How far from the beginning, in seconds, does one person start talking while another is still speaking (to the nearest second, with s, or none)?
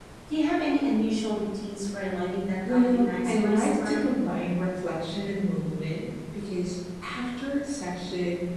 3 s